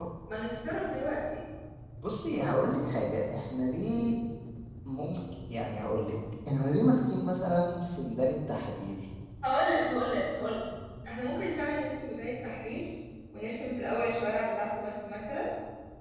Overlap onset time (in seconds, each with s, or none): none